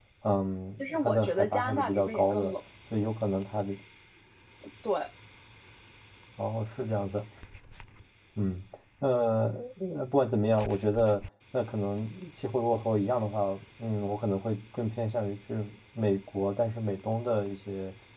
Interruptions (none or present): present